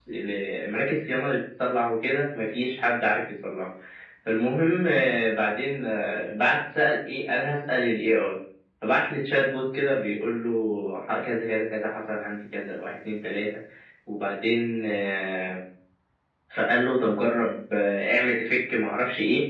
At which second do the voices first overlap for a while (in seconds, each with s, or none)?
none